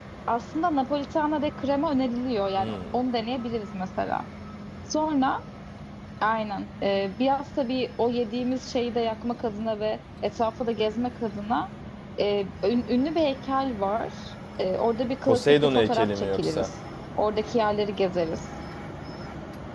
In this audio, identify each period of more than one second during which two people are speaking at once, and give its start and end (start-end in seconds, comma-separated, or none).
15.3-16.7